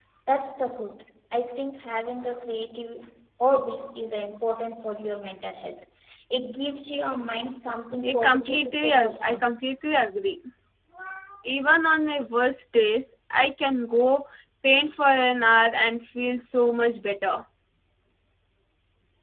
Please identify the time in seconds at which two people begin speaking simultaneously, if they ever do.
8.0 s

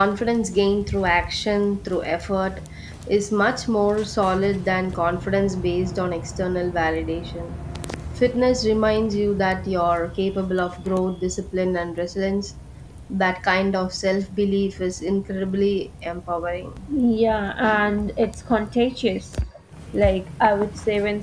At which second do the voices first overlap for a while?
none

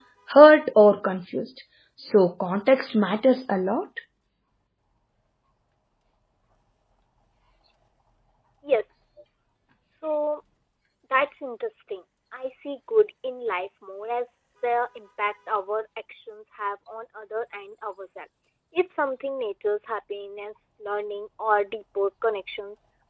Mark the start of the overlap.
none

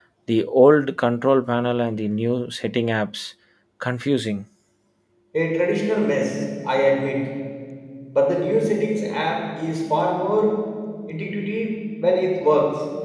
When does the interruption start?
none

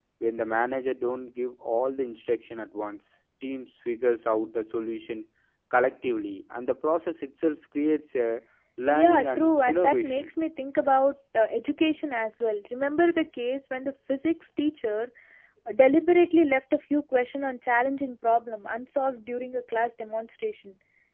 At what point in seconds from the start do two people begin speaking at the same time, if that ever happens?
8.9 s

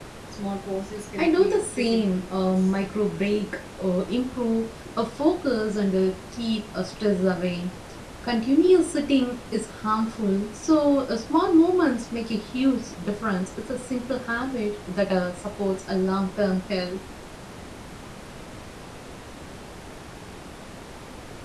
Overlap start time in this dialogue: 1.2 s

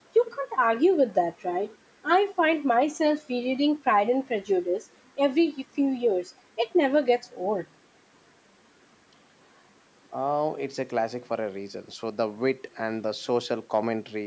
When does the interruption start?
none

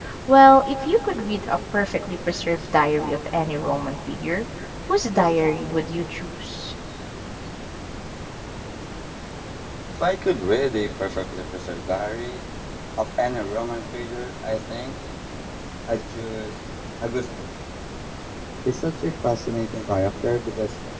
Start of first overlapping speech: none

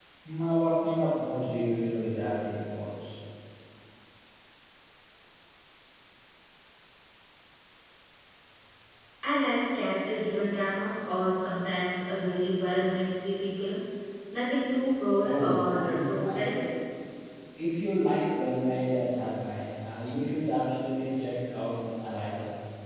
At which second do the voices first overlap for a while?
15.2 s

